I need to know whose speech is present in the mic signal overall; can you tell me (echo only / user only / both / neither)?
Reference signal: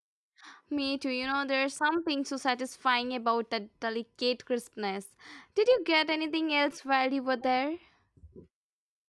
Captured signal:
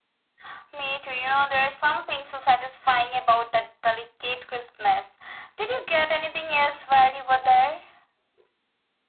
echo only